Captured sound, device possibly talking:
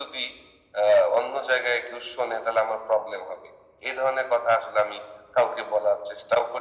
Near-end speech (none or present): none